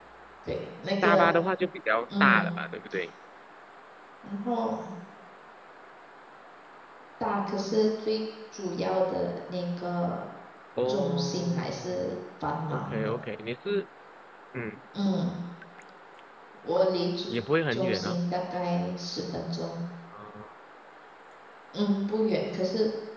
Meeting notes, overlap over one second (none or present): present